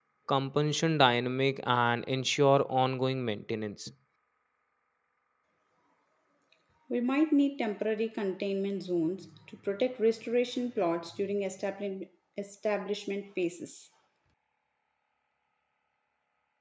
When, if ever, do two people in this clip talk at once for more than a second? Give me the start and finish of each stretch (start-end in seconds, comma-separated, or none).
none